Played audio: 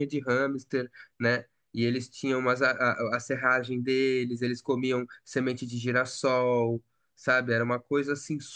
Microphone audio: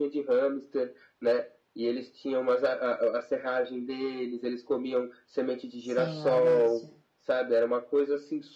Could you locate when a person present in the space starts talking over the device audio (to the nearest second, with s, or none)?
6 s